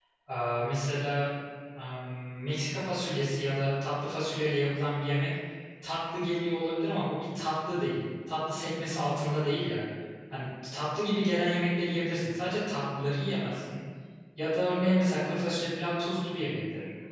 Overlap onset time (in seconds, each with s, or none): none